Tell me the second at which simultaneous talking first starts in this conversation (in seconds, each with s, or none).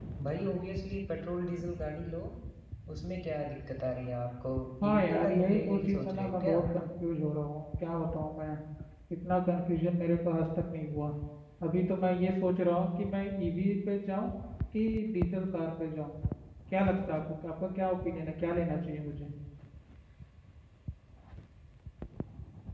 4.9 s